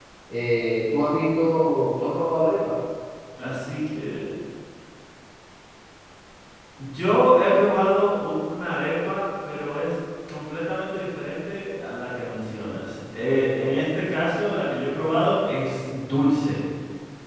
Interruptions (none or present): none